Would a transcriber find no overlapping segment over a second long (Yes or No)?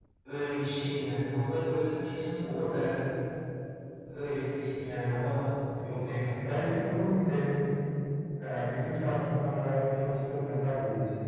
Yes